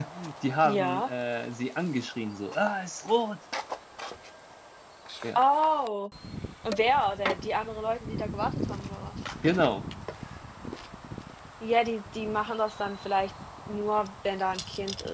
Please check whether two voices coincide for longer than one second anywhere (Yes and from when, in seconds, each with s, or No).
No